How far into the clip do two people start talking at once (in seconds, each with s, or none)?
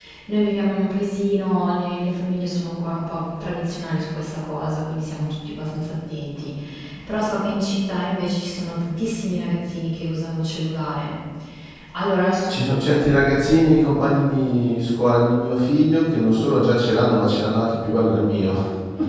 none